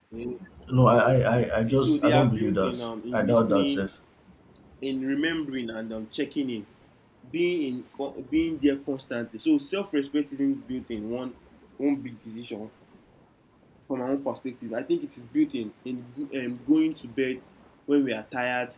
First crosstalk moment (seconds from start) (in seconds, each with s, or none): 1.6 s